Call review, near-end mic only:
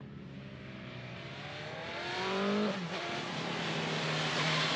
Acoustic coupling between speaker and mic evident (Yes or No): No